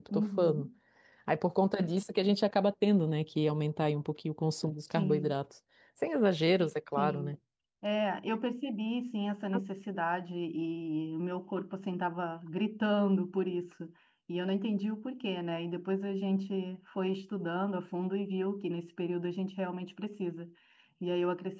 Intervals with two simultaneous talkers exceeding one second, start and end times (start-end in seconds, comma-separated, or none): none